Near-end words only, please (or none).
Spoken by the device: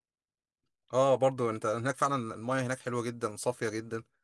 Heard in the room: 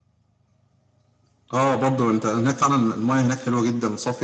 none